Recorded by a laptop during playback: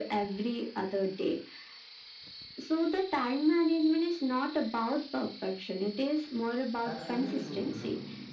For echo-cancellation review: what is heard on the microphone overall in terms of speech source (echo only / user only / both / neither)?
both